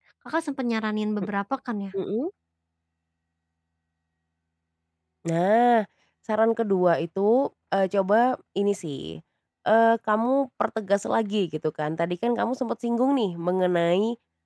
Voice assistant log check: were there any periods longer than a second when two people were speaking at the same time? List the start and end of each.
none

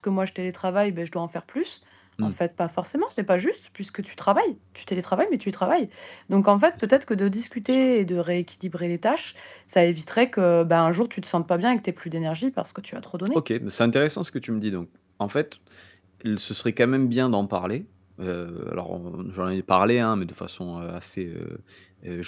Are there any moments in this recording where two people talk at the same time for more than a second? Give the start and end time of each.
none

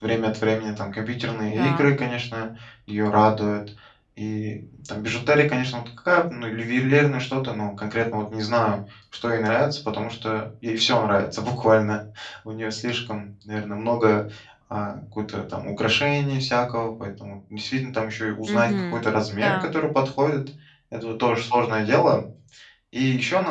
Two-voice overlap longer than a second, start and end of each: 18.5-19.7

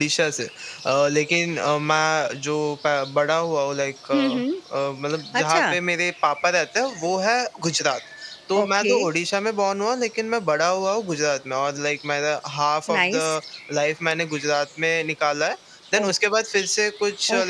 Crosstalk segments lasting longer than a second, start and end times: none

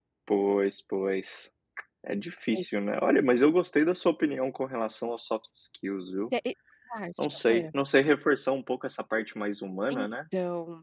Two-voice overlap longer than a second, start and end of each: none

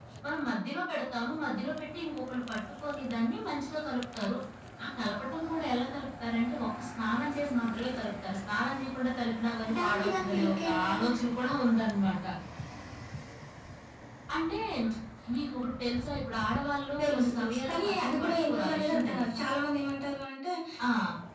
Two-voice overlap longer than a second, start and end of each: 9.8-11.1, 17.0-19.4

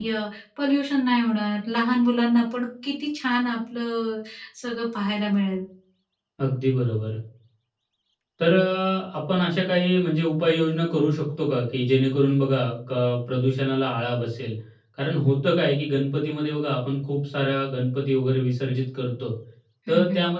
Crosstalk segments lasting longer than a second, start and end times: none

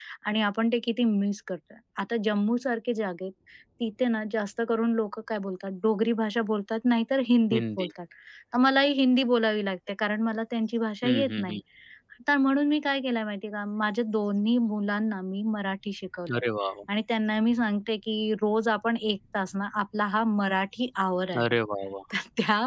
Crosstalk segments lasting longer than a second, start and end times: none

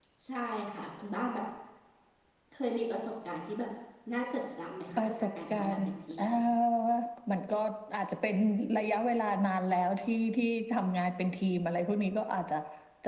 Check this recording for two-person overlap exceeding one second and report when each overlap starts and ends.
5.0-6.3

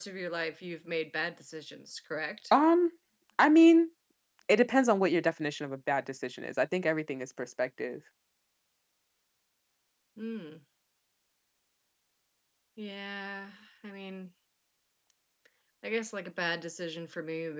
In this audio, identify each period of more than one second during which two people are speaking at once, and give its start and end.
none

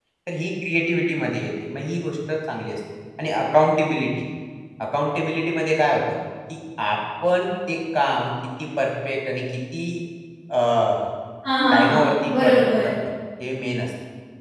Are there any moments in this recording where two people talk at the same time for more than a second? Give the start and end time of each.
11.7-12.9

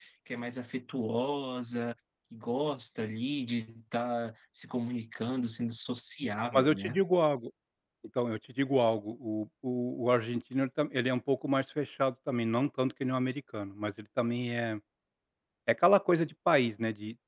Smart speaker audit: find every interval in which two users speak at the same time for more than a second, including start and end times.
none

